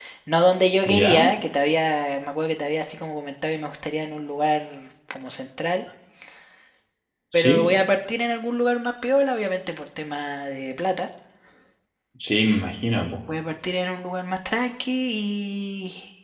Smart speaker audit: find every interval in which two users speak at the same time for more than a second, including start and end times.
none

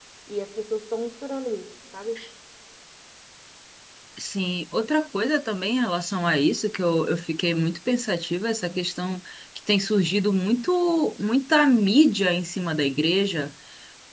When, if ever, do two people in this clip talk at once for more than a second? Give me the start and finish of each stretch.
none

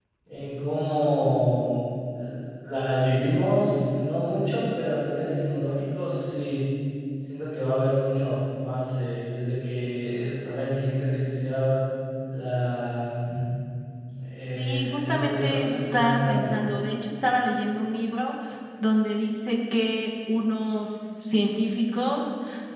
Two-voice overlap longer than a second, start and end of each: 14.6-16.6

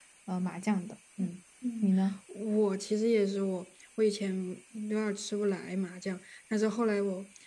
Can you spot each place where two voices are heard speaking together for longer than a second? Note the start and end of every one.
none

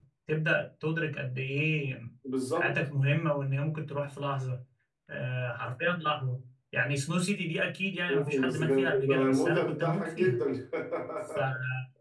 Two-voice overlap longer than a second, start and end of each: 8.1-10.4

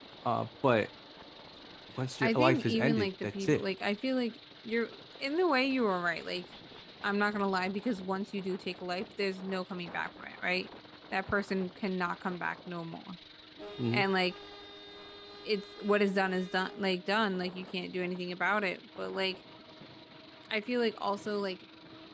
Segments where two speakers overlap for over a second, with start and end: 2.2-3.6

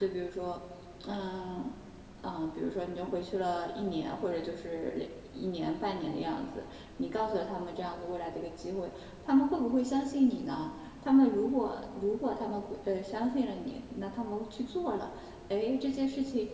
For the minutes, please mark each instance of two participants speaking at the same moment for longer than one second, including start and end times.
none

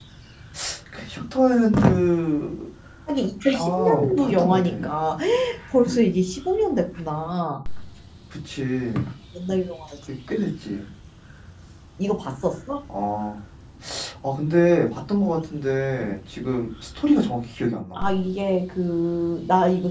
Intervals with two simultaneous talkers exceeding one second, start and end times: 3.5-4.8

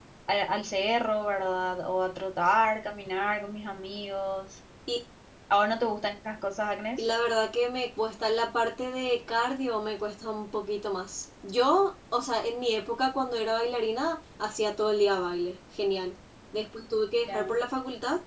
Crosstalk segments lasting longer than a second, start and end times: none

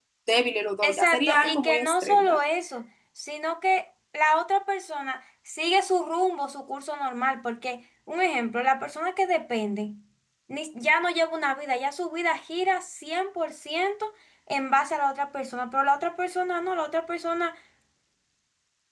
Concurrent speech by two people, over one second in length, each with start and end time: 0.8-2.4

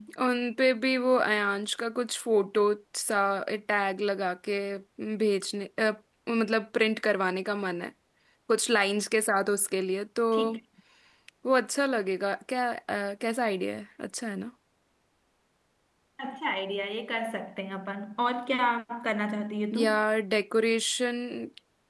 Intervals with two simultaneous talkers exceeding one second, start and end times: none

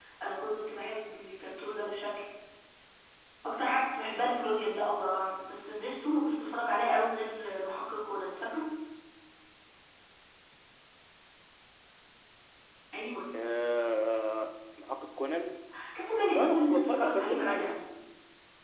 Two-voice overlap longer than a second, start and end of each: 16.3-17.7

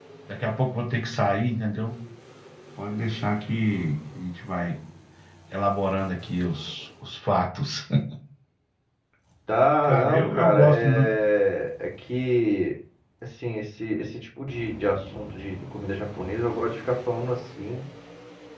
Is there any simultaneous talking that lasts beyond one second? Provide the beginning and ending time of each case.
9.8-11.1

